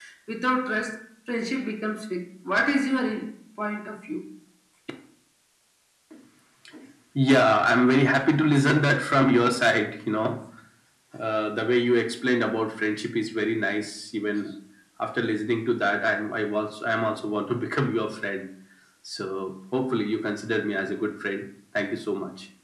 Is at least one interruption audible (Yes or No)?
No